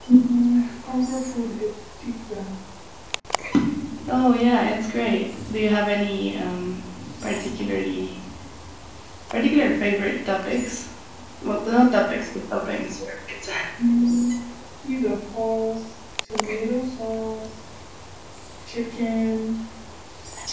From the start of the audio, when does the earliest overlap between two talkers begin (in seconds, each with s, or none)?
none